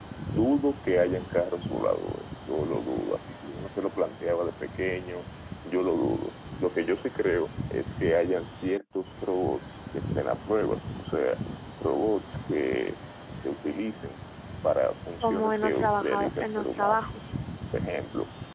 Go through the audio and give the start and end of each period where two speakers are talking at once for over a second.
15.2-17.1

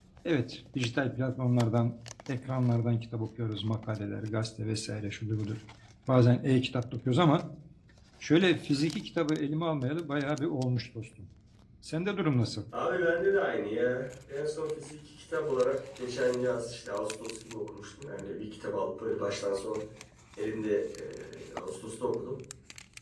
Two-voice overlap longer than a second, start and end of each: none

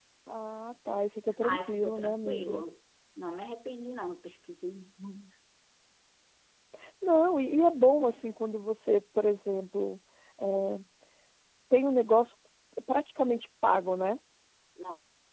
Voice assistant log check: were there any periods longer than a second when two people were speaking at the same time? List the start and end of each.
1.4-2.6

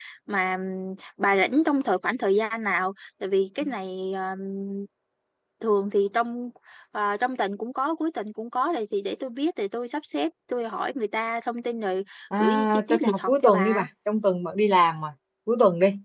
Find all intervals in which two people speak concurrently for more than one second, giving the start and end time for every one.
12.4-13.8

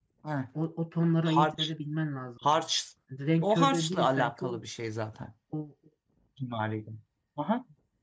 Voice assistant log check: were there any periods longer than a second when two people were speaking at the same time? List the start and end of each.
3.4-4.6

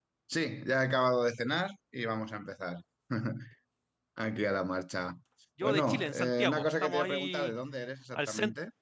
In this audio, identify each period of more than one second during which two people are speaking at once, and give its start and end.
5.6-7.5

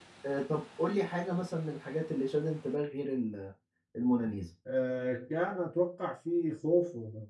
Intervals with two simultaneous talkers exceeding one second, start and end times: none

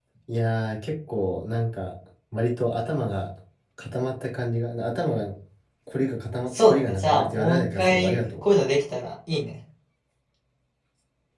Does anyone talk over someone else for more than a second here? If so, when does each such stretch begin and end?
6.6-8.4

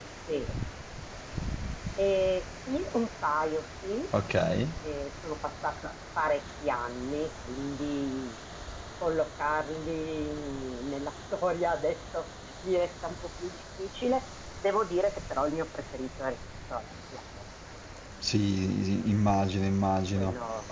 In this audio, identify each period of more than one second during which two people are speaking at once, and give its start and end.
none

